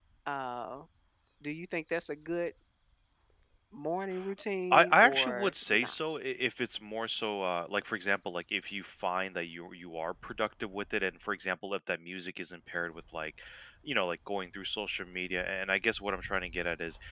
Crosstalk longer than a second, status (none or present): present